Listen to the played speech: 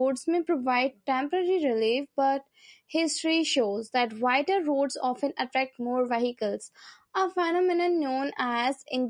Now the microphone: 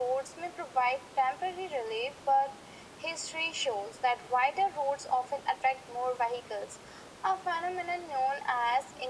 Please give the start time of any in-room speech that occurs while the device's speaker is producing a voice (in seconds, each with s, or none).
none